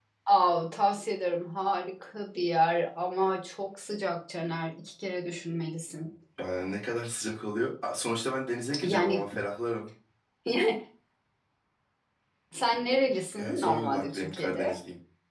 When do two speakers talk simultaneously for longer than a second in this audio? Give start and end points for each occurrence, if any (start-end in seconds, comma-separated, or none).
13.4-14.8